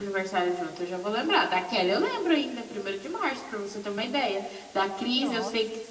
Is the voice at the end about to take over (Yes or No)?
No